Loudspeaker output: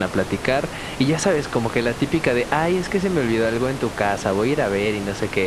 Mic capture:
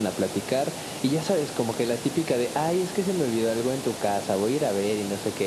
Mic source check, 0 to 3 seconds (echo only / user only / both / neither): echo only